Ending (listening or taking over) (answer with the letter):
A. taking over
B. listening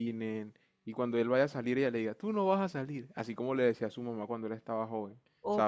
A